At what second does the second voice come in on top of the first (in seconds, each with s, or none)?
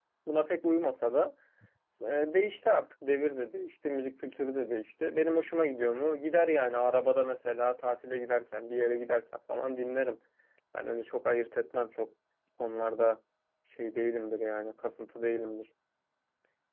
none